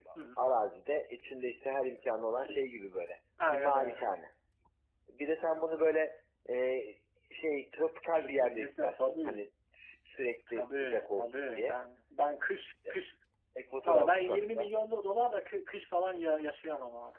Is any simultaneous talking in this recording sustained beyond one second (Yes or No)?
Yes